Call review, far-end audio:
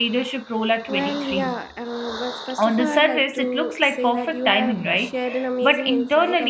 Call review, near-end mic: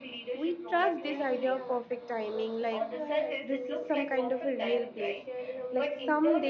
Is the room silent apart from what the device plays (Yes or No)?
No